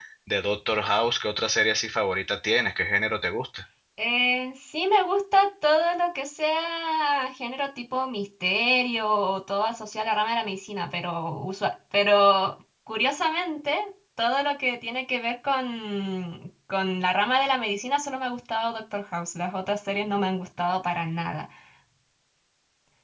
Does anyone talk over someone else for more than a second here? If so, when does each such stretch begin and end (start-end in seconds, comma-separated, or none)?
none